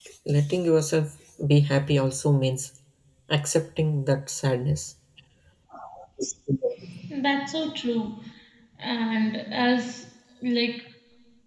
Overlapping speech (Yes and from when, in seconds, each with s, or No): No